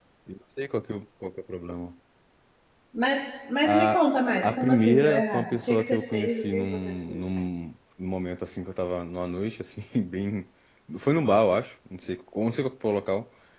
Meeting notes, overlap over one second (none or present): present